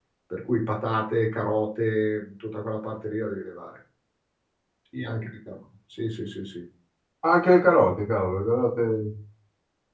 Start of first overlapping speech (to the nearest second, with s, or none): none